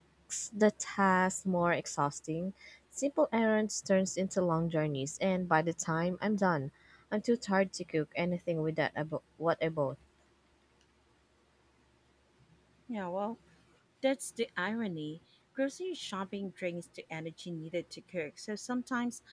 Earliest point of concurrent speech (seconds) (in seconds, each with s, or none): none